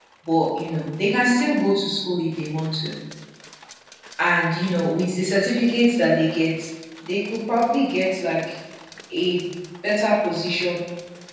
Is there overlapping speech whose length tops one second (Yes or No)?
No